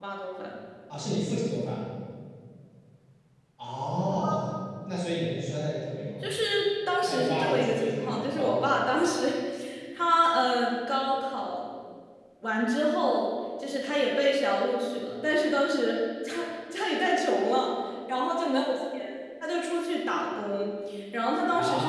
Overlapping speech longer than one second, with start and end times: 7.1-8.7

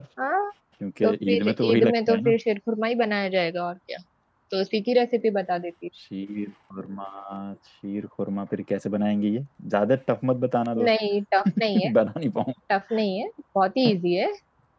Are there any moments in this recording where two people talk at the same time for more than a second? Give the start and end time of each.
1.0-2.4

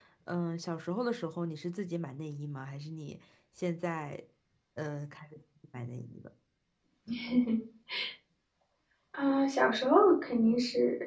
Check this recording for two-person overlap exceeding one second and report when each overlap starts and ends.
none

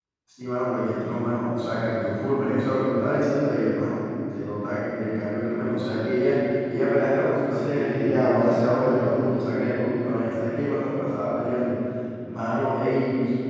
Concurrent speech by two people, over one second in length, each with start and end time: 7.5-9.2

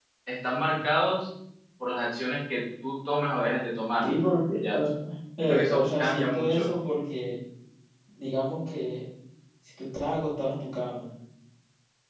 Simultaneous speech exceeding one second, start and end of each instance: 5.4-6.7

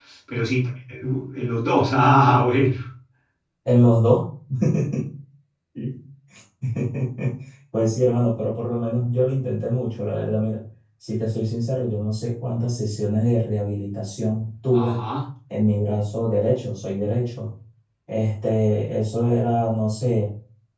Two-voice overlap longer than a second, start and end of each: none

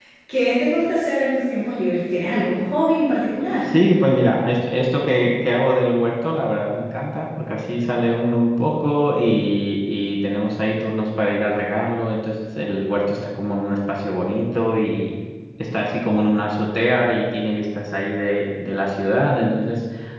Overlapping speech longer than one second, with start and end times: none

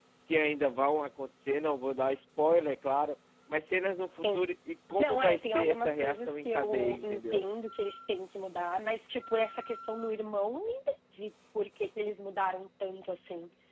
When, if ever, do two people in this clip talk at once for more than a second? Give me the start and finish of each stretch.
5.0-7.4

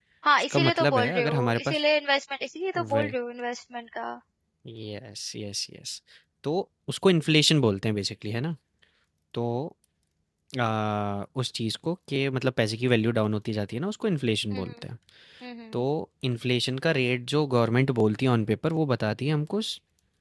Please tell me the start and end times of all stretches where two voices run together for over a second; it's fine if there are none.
0.5-1.8

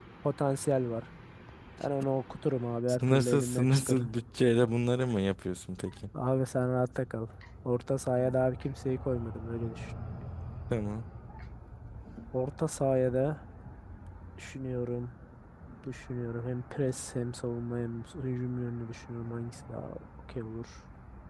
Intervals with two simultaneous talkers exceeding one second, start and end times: 2.9-4.1

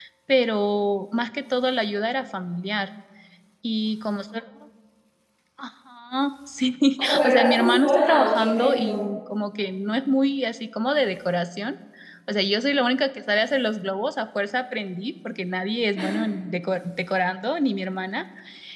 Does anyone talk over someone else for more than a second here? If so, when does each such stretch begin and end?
7.2-9.0

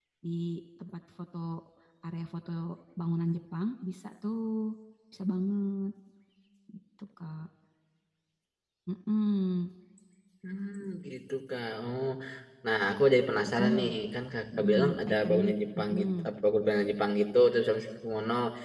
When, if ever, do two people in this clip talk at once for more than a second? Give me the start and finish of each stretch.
14.6-16.1

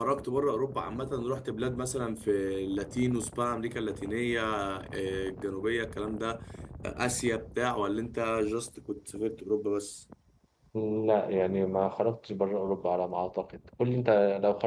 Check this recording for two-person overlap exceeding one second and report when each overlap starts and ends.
none

